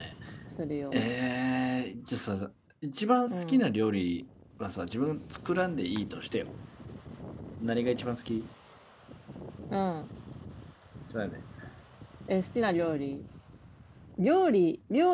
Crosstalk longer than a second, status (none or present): none